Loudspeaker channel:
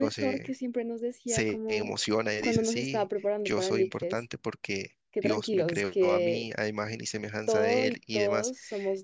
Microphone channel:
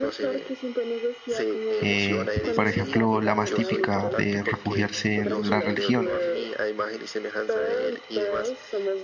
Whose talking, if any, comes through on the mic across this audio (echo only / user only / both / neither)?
both